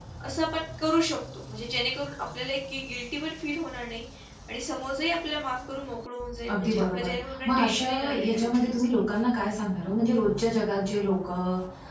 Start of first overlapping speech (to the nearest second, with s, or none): 6 s